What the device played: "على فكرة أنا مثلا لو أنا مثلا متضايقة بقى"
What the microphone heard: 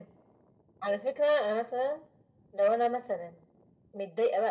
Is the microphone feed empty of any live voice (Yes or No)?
Yes